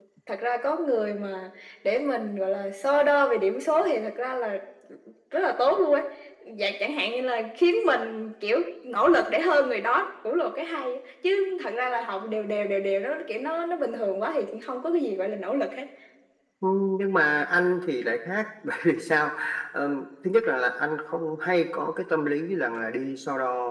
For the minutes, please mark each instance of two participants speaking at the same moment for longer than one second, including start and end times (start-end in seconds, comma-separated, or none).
none